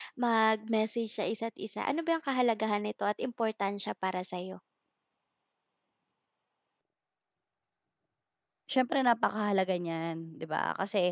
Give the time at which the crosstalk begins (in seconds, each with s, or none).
none